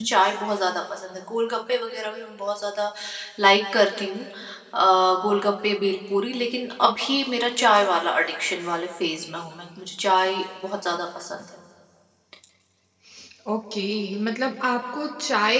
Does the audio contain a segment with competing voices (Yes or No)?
No